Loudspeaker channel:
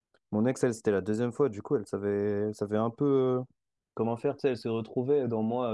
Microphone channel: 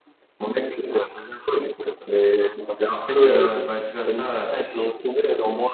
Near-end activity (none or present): present